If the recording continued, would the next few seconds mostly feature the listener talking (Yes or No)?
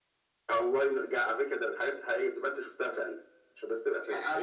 Yes